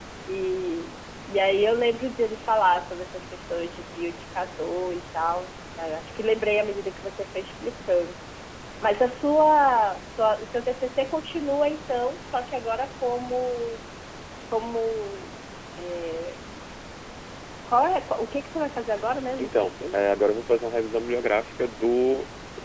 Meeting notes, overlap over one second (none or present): none